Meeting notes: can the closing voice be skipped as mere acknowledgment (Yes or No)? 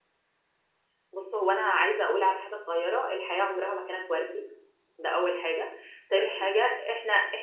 Yes